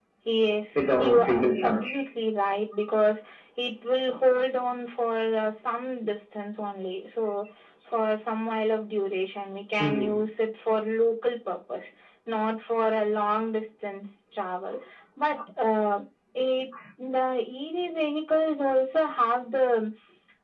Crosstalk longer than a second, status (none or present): present